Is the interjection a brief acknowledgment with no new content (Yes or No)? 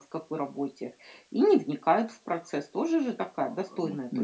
No